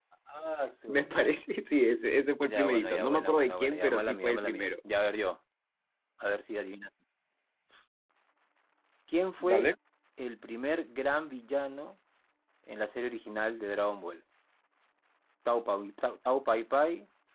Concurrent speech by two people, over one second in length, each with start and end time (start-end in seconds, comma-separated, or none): 2.4-4.7